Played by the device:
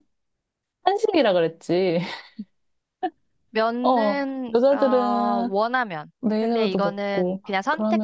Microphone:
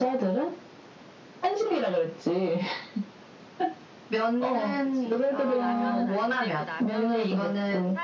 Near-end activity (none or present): present